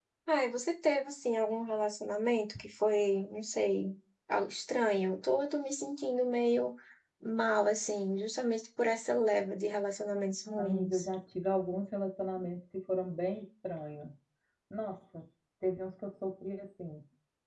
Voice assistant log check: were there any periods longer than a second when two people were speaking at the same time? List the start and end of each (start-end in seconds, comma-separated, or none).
none